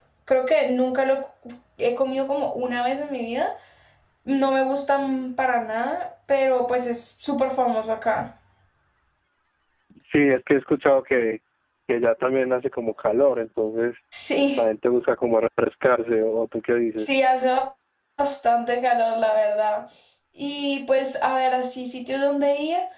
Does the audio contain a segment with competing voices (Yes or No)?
No